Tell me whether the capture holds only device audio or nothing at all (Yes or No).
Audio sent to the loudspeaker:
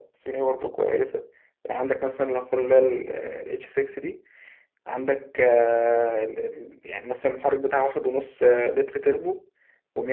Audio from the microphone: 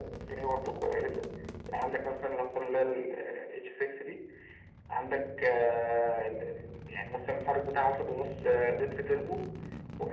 Yes